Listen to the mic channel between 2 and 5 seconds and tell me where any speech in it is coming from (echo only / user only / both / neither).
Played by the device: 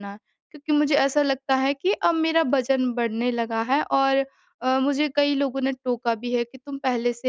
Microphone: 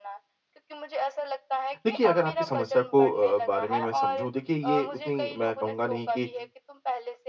both